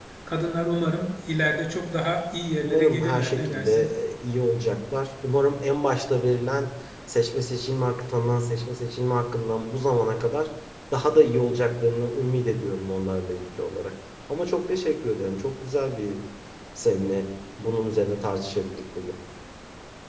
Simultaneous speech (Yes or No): Yes